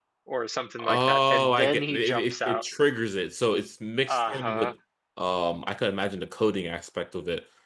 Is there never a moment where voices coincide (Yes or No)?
No